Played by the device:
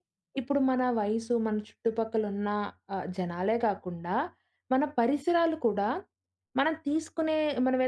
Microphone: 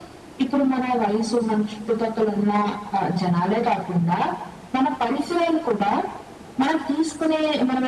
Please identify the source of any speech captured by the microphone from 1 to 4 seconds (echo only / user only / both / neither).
echo only